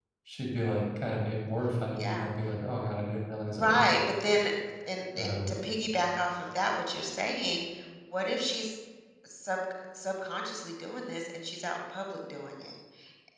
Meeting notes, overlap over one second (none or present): none